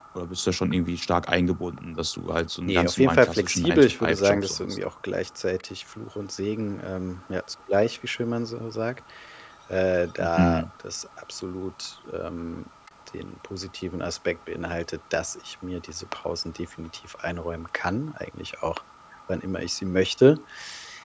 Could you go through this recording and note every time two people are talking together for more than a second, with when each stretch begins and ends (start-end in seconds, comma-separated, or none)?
2.7-4.8